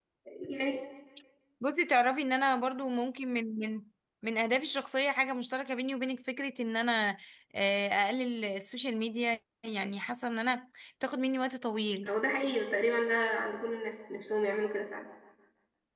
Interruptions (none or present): none